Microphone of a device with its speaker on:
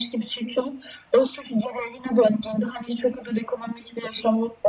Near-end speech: none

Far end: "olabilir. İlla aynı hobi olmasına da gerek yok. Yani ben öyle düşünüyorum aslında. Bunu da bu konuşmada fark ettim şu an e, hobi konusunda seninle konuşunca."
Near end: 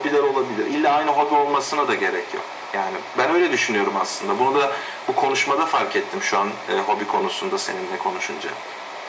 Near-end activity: none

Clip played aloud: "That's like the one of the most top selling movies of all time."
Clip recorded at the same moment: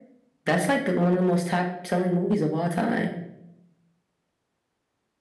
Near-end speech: none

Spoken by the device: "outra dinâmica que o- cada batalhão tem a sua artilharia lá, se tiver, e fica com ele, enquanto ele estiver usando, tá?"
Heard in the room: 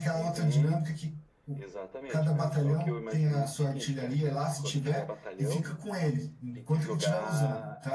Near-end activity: present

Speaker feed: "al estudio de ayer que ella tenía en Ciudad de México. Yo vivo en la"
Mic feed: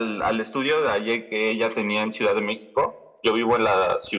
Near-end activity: none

